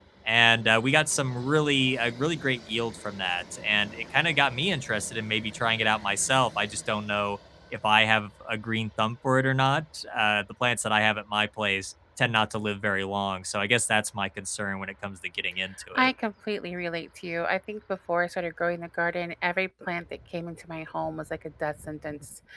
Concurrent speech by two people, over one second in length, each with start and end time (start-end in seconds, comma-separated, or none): none